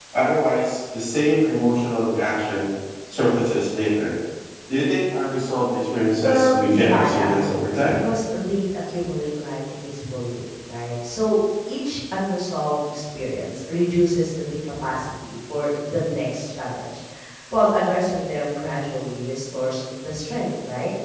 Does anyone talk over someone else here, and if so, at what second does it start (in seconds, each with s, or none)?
6.2 s